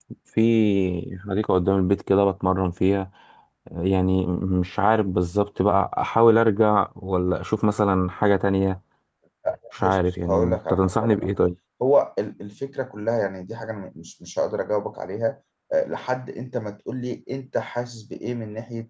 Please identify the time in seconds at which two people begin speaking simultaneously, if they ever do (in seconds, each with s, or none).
9.8 s